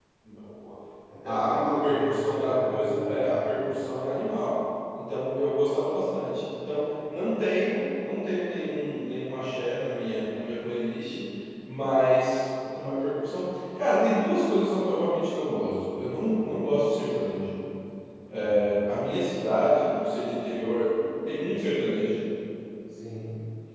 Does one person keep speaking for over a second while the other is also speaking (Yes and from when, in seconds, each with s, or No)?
Yes, from 1.3 s